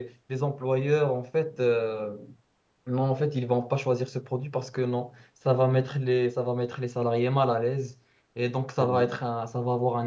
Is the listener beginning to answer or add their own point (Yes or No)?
No